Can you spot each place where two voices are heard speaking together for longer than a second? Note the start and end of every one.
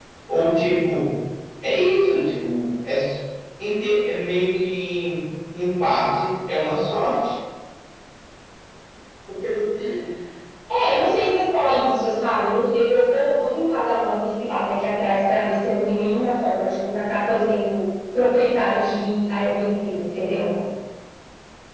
none

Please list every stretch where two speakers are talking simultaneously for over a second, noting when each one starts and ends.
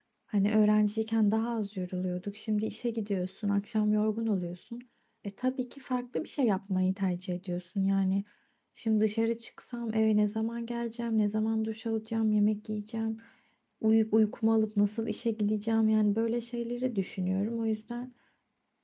none

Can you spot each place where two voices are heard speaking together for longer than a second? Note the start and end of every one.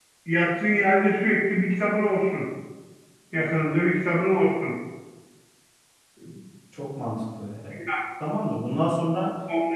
none

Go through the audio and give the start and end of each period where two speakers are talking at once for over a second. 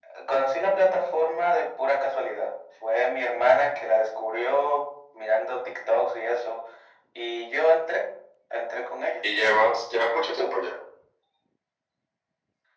none

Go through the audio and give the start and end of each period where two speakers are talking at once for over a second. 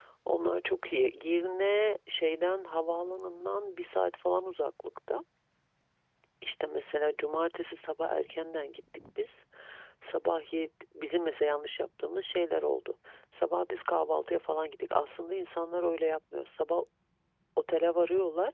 none

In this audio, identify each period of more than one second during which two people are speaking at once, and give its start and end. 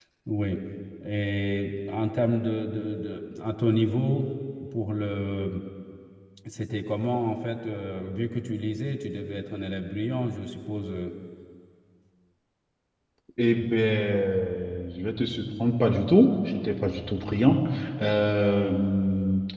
none

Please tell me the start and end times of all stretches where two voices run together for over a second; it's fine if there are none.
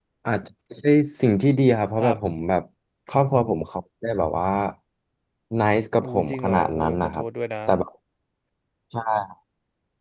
6.0-7.2

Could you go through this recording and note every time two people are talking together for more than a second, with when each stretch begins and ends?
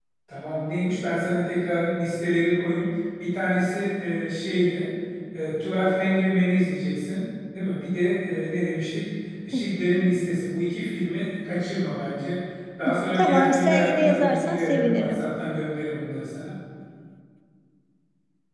13.2-15.2

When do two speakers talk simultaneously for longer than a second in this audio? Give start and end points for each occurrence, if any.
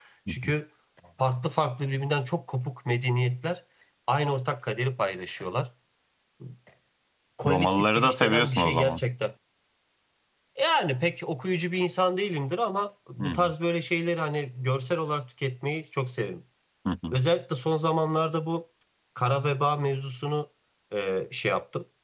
7.4-9.0

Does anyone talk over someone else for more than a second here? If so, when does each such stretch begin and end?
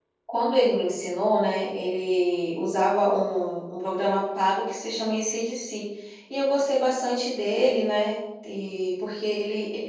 none

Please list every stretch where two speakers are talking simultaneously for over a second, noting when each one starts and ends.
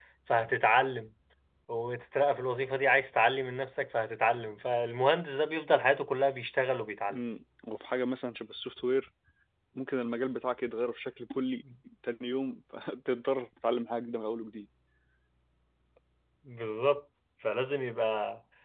none

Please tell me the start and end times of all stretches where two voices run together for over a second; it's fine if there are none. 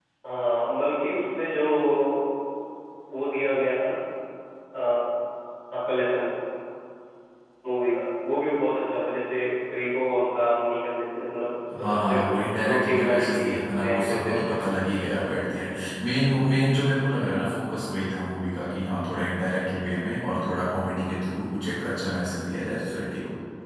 11.8-14.6

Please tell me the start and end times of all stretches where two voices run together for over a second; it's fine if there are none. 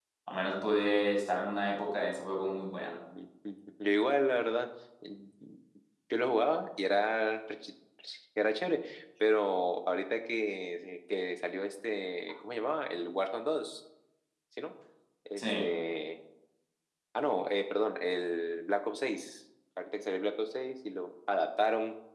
none

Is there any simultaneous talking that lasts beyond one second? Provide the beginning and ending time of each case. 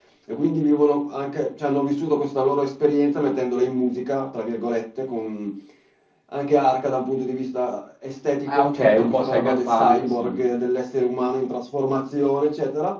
8.5-10.5

